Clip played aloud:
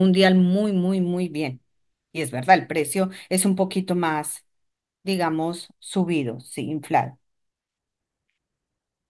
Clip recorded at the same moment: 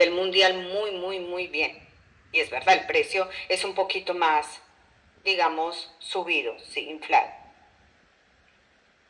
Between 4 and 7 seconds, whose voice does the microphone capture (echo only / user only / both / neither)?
echo only